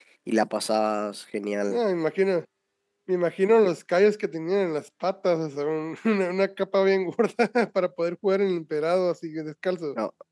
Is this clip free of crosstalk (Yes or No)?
Yes